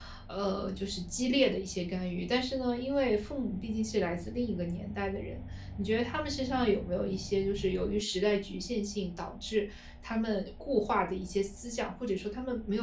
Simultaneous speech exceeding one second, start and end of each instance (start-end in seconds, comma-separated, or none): none